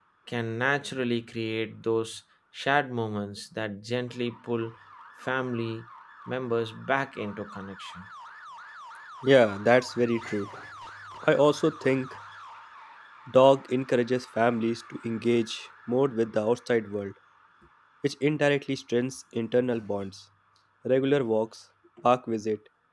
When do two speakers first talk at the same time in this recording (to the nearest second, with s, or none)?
none